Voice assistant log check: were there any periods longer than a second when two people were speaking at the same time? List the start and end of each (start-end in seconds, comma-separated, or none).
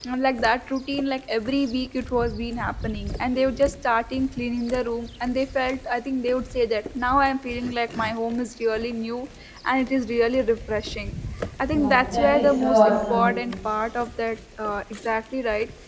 11.7-13.3